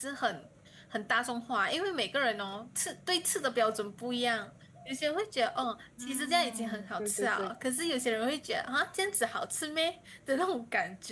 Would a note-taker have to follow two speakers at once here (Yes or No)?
Yes